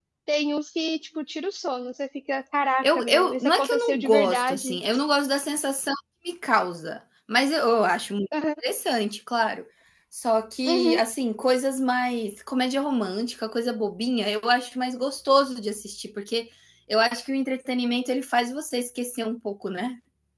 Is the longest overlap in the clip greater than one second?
Yes, from 2.8 s

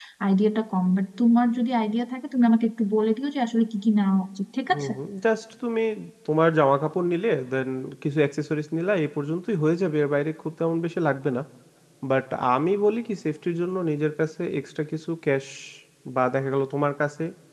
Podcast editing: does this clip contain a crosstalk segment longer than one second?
No

